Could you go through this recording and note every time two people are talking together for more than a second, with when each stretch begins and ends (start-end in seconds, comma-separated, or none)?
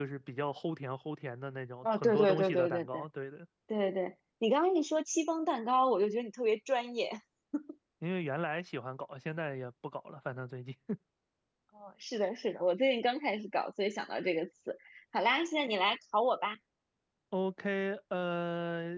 1.8-3.0